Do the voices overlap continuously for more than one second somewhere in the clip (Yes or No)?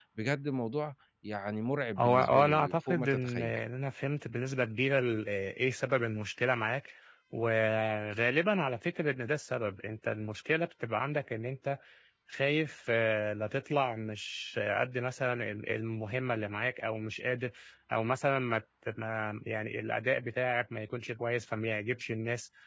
Yes